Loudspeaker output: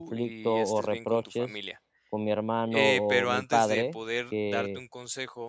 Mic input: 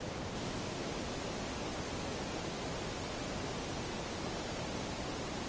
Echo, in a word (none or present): none